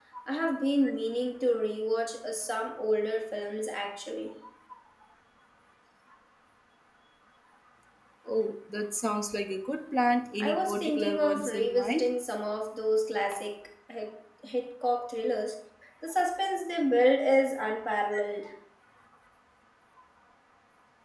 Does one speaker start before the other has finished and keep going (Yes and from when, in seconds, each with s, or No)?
Yes, from 10.4 s